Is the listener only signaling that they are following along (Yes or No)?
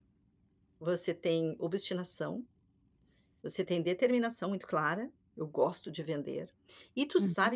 Yes